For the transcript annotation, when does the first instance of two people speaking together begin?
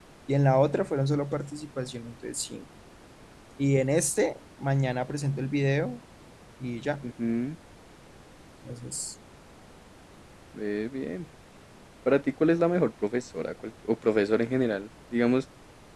none

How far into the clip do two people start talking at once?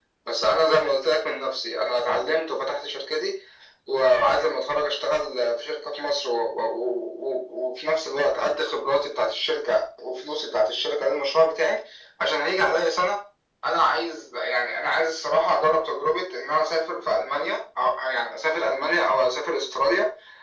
none

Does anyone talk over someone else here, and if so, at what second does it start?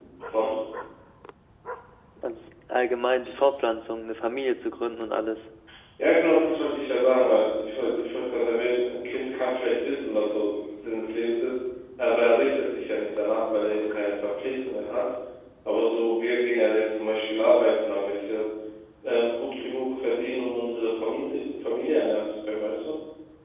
none

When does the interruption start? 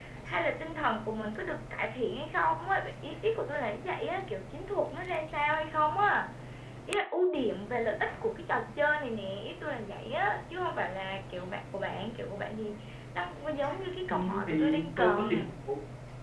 14.1 s

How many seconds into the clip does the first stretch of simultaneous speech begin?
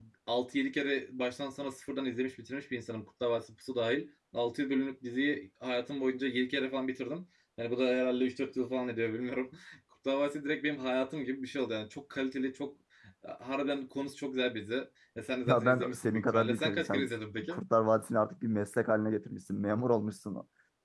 15.5 s

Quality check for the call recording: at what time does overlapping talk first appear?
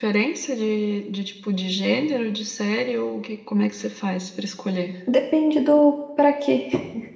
none

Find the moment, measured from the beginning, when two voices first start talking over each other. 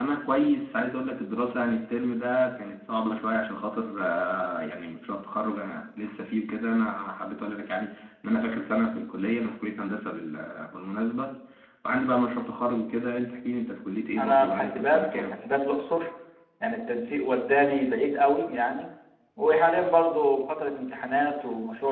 14.2 s

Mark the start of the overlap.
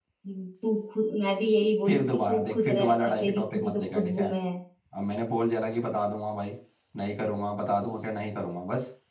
1.9 s

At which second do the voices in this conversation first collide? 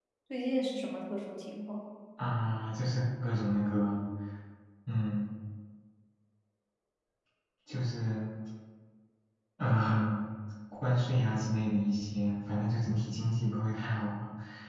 none

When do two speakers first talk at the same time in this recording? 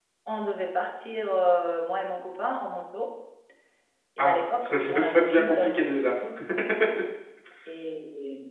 4.2 s

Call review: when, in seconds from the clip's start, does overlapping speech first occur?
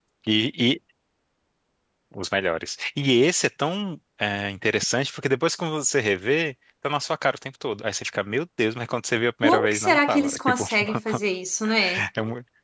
9.4 s

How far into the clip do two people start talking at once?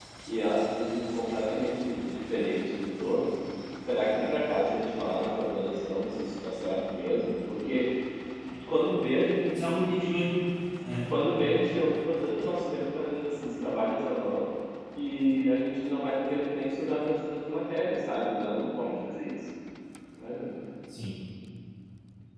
none

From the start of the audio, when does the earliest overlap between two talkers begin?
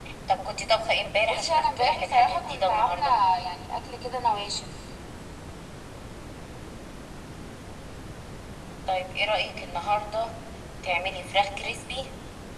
1.3 s

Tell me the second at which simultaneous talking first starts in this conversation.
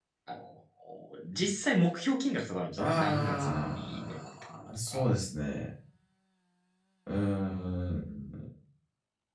2.8 s

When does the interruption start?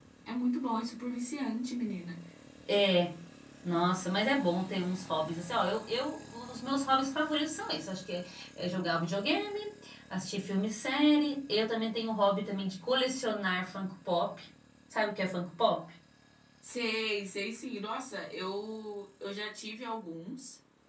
none

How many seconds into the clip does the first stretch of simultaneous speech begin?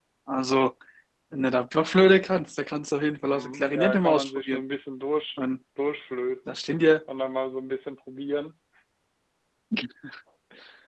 3.3 s

